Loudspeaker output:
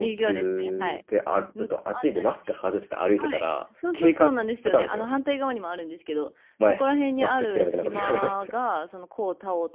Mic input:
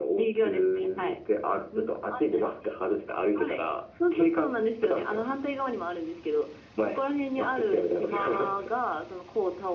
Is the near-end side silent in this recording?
Yes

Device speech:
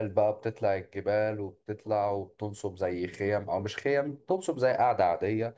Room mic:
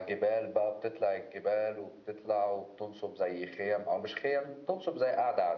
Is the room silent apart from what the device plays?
Yes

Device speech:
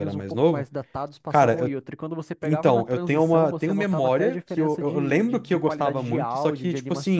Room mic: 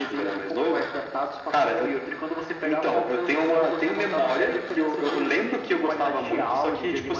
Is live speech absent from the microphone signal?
Yes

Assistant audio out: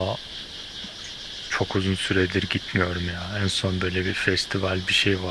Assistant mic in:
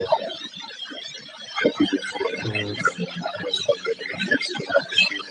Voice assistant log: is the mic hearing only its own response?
No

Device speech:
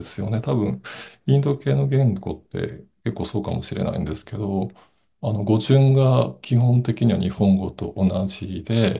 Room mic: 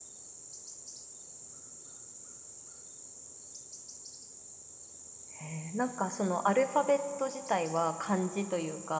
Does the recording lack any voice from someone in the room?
No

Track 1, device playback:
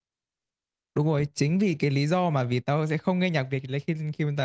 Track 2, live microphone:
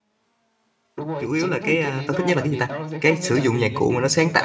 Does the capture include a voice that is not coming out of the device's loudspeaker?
Yes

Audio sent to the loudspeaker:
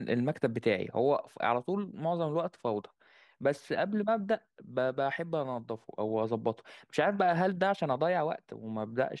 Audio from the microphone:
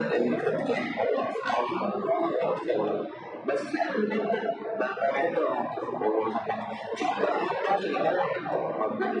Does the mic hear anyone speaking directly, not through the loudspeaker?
No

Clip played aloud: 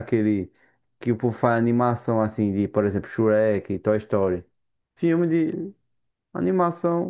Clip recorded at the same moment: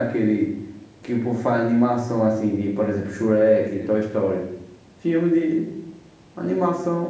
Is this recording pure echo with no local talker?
No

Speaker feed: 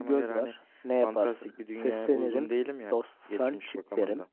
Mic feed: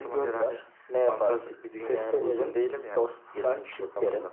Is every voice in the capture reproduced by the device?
Yes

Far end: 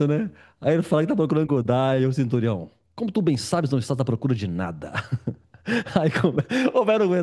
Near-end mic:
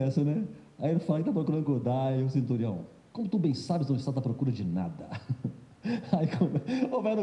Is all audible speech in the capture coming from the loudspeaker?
Yes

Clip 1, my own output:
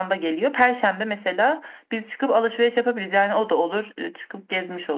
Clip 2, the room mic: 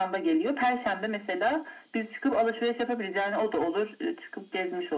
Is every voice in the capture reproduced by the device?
Yes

